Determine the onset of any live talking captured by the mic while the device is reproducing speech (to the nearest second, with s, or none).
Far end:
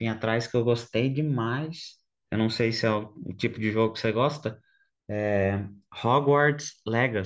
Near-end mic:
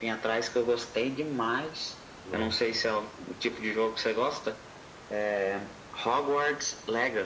2 s